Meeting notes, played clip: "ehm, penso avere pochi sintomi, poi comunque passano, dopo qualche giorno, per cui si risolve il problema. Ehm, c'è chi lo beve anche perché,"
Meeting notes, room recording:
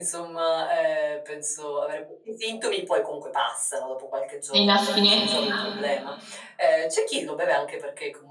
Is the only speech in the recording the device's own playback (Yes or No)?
No